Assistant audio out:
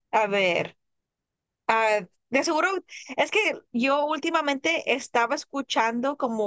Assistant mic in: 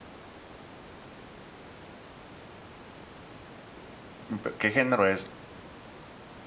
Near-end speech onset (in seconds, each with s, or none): 4.3 s